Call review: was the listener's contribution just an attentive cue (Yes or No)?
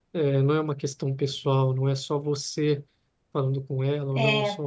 Yes